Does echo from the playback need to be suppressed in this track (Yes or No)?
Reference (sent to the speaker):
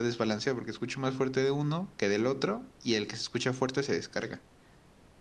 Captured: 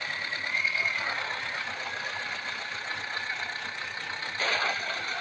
No